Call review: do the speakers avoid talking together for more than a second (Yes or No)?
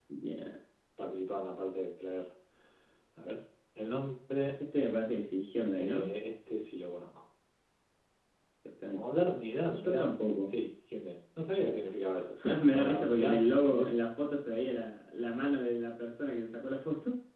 No